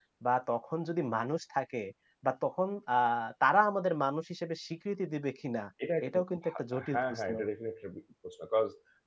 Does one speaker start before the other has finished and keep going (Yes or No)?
Yes